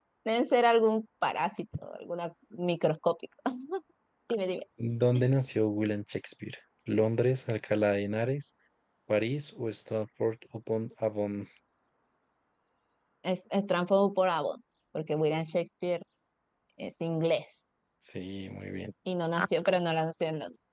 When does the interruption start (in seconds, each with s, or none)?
none